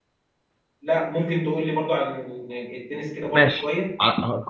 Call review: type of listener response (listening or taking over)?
taking over